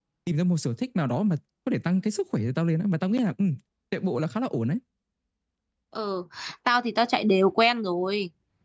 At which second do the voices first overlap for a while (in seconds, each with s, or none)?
none